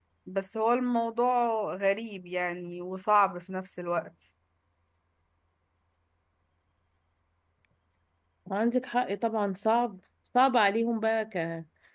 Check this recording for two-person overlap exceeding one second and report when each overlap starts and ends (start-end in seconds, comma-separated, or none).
none